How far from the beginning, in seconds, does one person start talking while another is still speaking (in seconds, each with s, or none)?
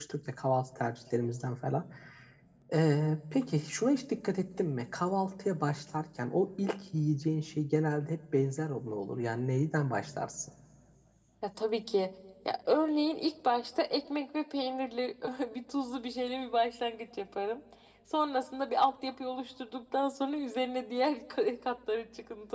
none